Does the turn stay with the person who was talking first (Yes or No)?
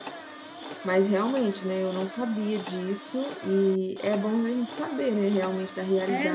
No